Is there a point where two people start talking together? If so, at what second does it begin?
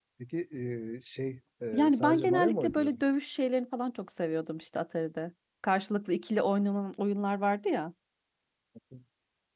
1.7 s

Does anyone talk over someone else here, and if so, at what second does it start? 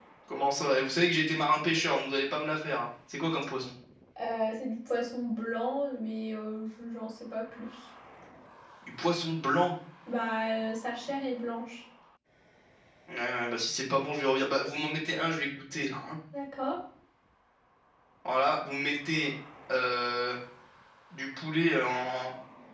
none

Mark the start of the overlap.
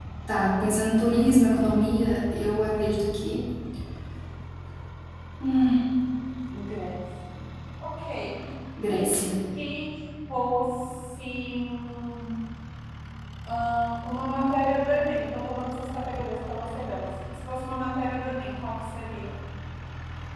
none

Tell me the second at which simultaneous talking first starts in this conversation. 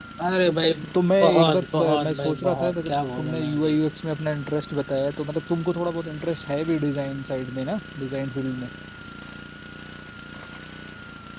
1.2 s

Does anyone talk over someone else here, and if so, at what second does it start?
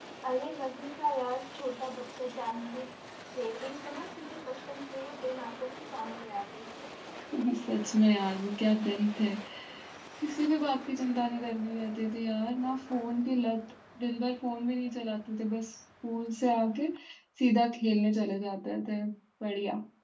none

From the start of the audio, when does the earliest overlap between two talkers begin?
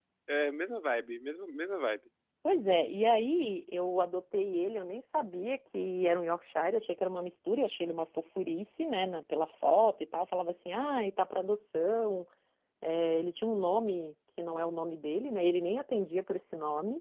none

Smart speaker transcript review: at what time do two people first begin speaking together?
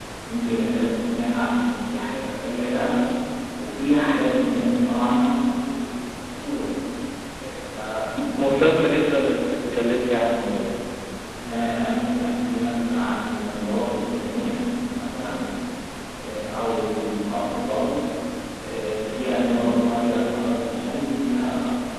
none

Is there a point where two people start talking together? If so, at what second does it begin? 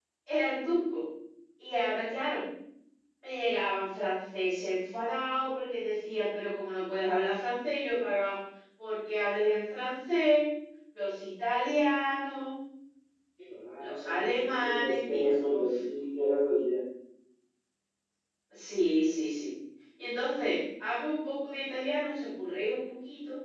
13.8 s

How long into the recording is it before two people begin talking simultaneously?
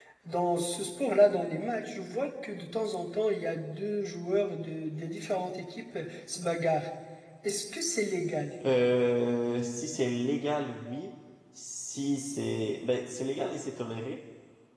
none

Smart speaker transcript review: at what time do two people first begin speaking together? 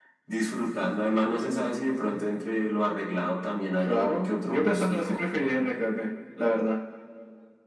3.8 s

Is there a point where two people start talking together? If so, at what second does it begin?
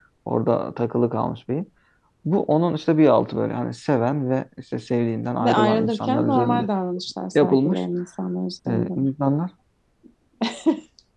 5.4 s

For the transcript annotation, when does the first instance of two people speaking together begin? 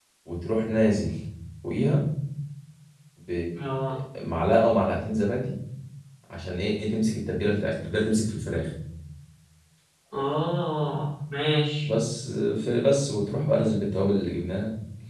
none

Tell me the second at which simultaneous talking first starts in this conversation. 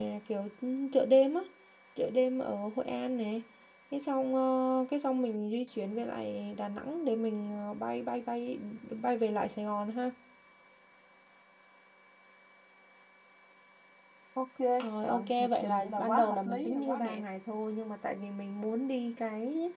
15.0 s

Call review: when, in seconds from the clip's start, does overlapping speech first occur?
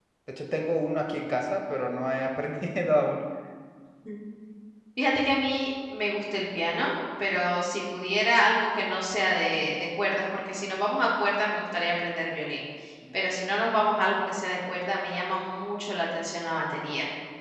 none

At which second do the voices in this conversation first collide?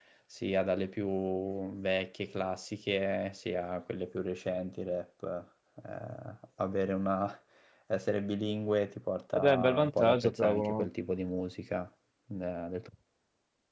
9.3 s

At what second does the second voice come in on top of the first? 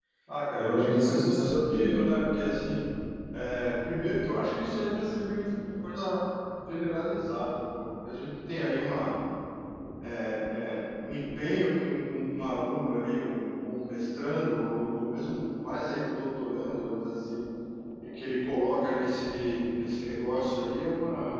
0.6 s

